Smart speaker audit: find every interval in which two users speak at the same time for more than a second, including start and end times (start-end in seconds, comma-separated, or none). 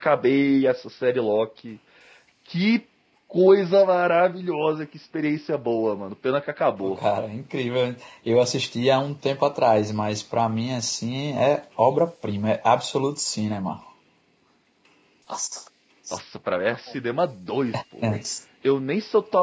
none